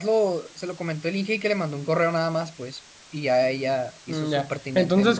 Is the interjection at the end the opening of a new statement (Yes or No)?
Yes